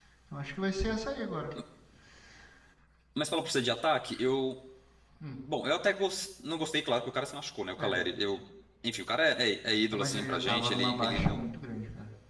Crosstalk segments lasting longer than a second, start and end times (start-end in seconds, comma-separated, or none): 9.9-11.4